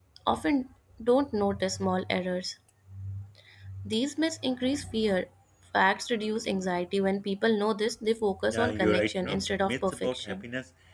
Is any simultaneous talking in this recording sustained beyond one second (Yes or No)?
Yes